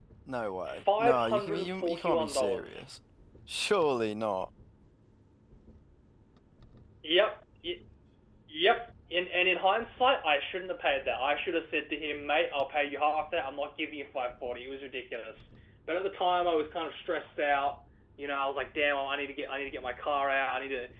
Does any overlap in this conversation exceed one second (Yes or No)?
Yes